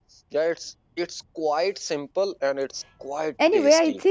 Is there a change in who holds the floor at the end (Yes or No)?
Yes